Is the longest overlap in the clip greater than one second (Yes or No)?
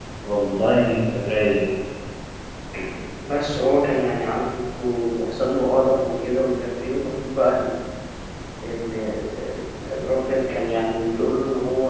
No